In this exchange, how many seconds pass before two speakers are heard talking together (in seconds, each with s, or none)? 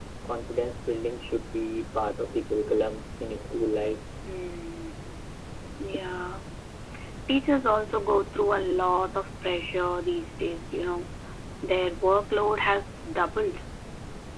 none